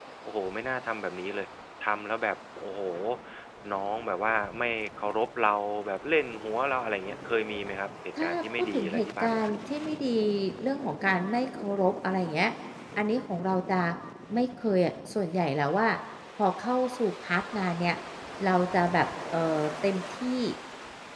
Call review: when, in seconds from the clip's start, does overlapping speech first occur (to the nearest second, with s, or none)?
8 s